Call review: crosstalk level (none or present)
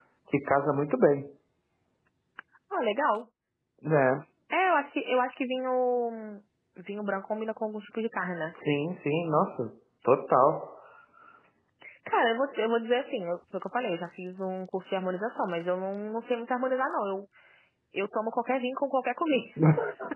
none